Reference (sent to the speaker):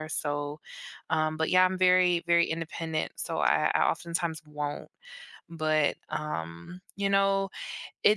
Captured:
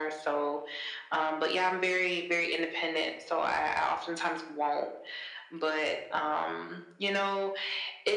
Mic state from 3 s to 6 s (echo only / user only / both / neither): echo only